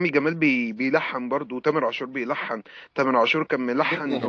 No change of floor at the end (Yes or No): No